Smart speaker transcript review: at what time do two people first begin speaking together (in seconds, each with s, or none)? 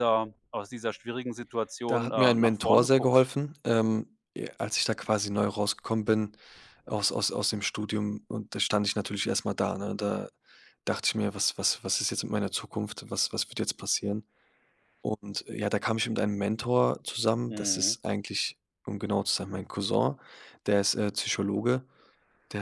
1.9 s